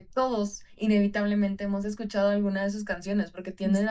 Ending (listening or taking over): listening